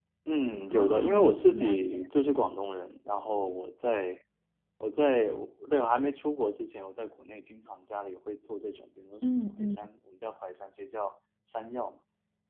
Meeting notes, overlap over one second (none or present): present